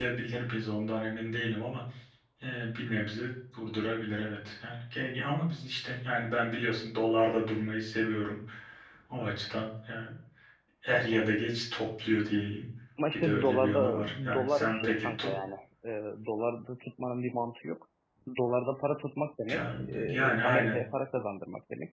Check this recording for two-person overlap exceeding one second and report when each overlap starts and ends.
13.1-15.3, 19.5-20.8

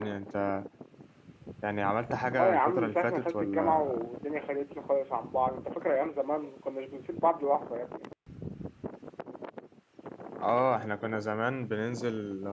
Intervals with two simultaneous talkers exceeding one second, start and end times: 2.4-3.9

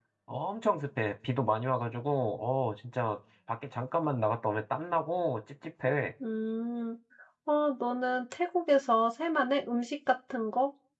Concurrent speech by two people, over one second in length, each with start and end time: none

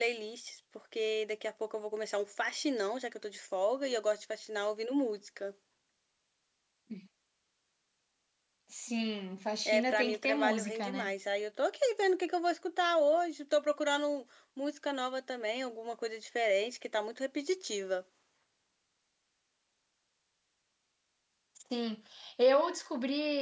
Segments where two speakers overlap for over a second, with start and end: 9.7-11.1

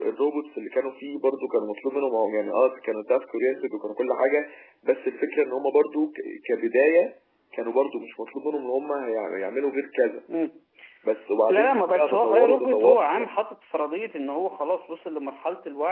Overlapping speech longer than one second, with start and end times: 11.5-13.0

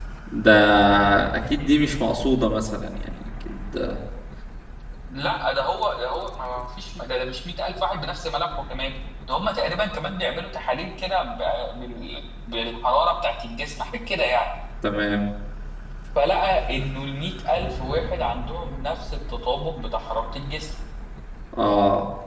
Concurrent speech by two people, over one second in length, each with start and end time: none

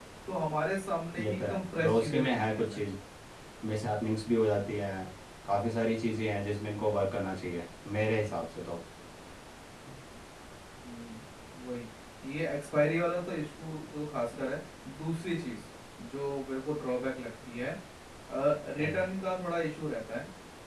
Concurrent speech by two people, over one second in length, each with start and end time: 1.2-2.8

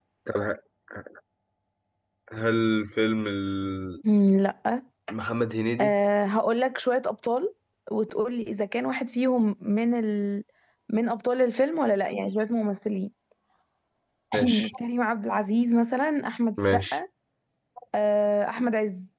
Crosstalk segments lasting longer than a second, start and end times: none

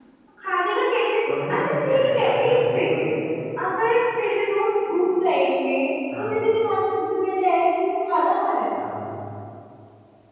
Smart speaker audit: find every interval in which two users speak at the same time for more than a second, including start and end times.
1.5-3.1

